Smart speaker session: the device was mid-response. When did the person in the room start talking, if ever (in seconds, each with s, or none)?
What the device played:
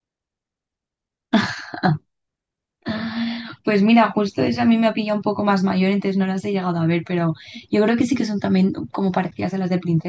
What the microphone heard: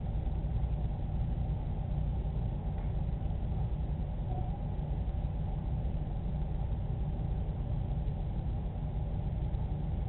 none